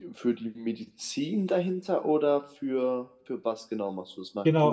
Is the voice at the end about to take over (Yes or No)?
Yes